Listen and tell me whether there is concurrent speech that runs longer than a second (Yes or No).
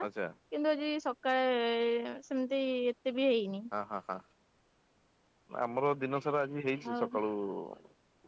No